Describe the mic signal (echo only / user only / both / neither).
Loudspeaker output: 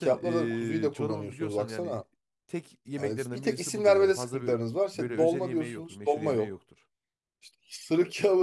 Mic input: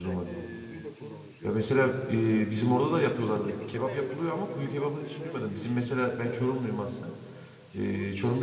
both